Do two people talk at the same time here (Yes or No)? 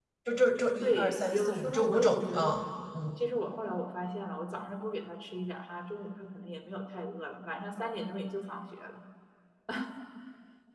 Yes